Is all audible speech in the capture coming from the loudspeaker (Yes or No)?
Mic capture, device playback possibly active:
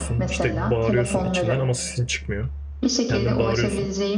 No